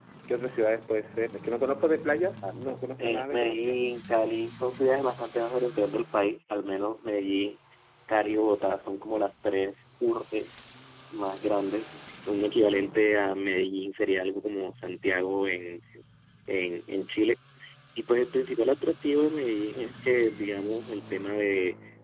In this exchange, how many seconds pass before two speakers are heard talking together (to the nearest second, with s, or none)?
2 s